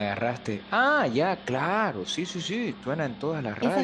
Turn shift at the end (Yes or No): Yes